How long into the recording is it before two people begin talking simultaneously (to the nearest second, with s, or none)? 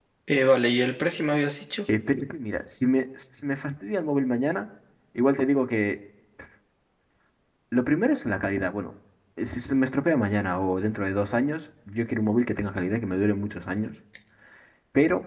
none